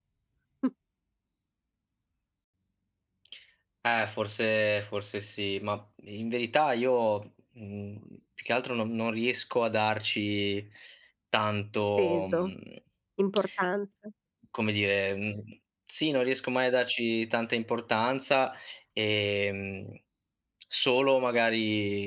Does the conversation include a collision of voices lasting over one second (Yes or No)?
No